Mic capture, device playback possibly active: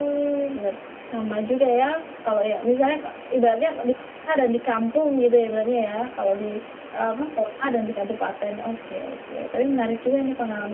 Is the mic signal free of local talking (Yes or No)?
Yes